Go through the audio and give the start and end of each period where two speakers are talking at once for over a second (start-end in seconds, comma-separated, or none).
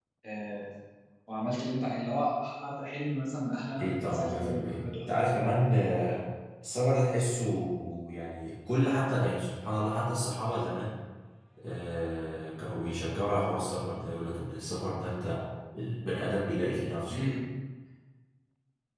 3.8-5.1